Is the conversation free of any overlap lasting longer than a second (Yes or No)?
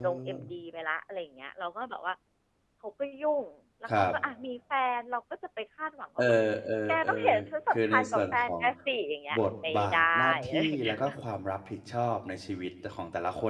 No